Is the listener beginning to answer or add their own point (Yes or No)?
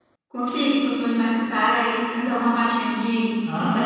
Yes